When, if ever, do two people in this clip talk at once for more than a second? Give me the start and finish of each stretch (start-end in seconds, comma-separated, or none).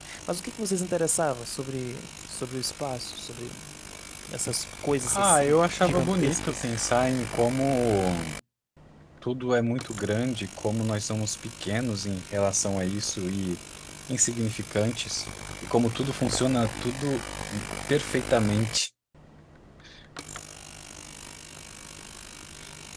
5.1-6.6